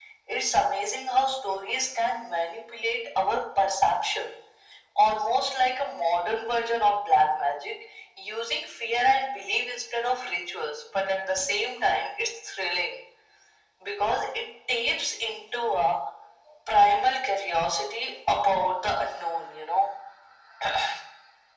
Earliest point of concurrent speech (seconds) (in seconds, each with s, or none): none